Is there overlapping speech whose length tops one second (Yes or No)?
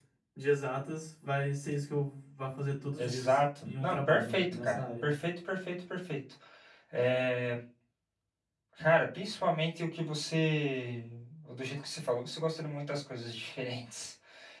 Yes